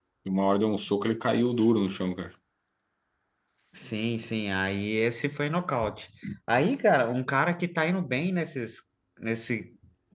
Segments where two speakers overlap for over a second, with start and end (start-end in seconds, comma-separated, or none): none